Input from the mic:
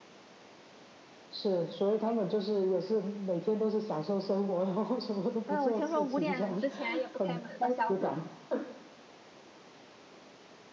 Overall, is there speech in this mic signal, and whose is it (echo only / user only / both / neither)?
both